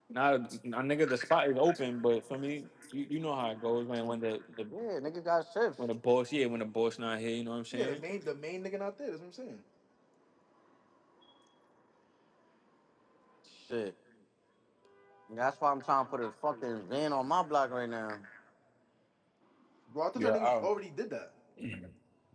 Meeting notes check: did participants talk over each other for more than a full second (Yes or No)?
No